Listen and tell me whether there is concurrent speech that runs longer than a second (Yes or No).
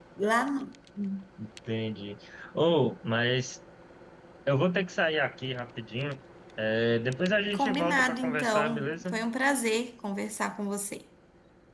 Yes